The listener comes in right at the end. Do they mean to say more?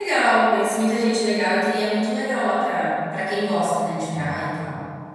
Yes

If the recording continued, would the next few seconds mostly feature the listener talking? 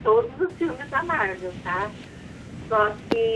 No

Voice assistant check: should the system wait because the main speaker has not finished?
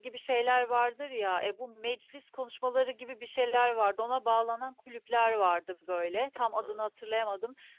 Yes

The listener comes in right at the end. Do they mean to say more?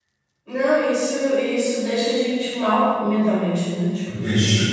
No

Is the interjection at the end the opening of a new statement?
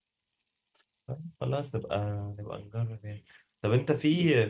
No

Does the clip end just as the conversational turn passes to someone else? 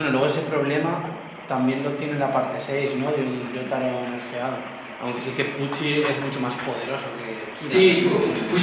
Yes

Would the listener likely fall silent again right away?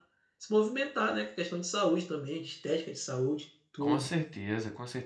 No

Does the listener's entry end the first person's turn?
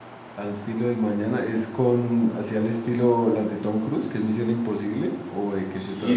Yes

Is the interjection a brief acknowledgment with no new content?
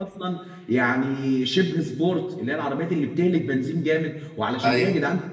Yes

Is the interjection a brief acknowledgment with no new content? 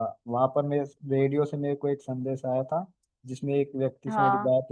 Yes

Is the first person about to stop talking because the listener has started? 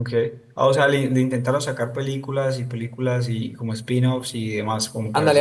Yes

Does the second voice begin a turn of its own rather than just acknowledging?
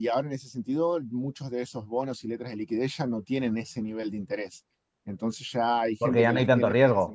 Yes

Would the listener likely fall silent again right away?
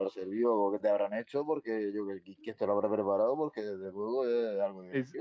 No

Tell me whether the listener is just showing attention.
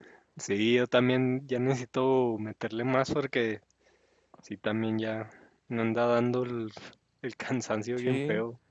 No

